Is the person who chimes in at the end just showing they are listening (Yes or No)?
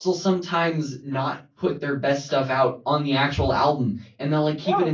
Yes